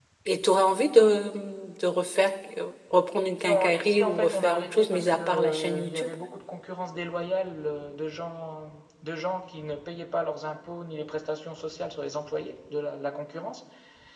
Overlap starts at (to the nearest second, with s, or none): 3 s